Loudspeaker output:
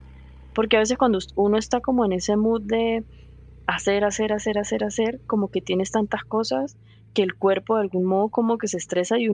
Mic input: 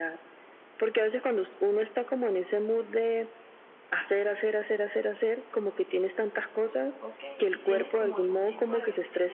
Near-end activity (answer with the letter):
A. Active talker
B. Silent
A